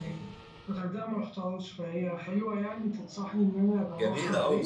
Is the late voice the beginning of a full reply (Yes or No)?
Yes